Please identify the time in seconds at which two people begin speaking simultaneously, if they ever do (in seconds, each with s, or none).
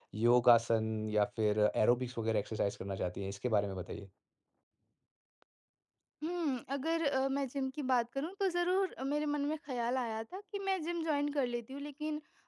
none